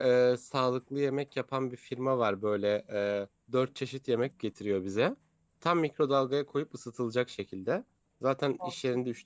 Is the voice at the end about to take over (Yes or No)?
No